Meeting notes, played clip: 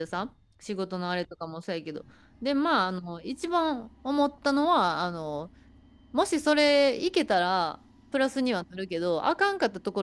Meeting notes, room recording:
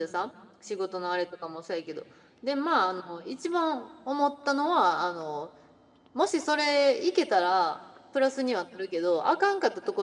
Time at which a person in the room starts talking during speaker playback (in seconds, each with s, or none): none